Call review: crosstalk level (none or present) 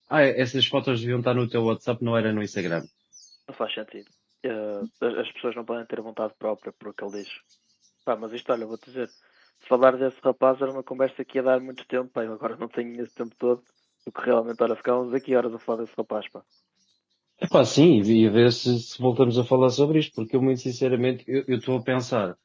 none